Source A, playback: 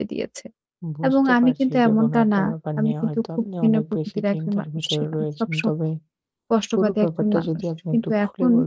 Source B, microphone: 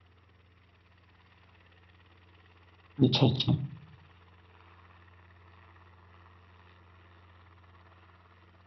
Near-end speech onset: 3.0 s

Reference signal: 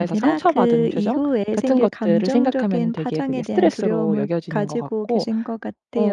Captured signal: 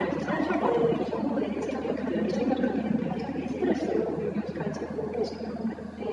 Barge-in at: none

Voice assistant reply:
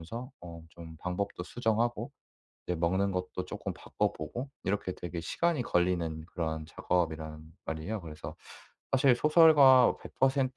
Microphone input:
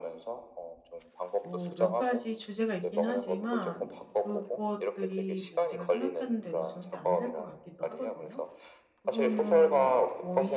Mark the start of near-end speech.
1.4 s

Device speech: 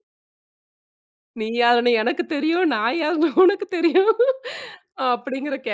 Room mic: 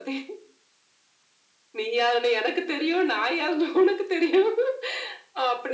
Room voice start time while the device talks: none

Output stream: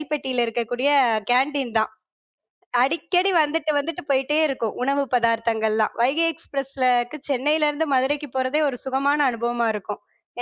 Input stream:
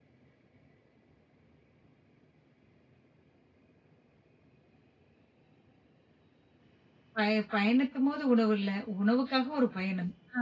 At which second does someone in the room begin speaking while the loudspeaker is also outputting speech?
7.2 s

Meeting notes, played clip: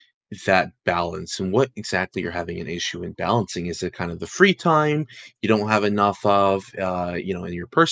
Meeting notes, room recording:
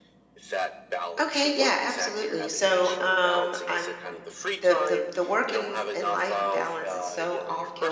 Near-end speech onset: 1.2 s

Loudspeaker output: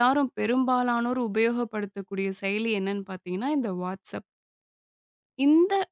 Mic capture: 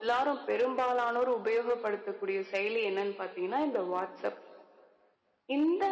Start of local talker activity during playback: none

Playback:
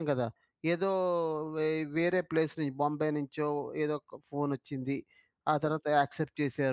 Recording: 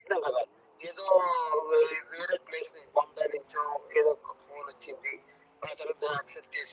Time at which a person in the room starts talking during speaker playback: none

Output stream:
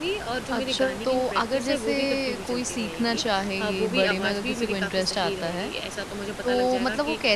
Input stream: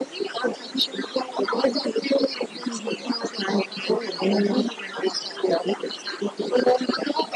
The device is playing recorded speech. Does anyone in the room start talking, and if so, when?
2.7 s

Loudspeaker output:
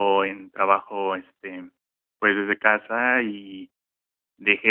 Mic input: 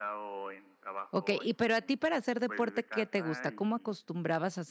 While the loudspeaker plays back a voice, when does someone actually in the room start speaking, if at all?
1.1 s

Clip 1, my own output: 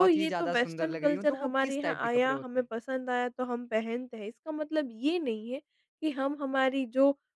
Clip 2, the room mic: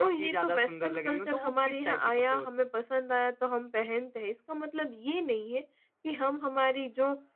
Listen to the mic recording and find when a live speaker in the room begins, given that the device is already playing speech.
none

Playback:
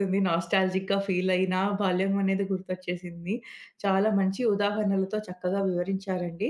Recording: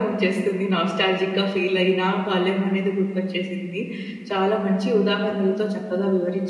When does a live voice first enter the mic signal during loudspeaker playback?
none

